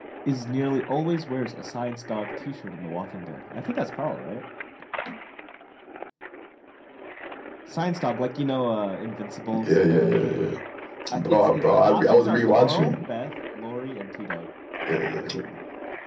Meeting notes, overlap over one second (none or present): present